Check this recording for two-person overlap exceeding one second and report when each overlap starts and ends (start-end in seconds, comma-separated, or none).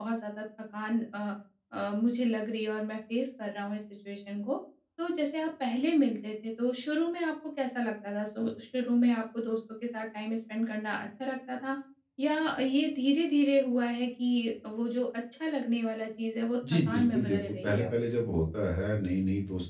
16.7-17.9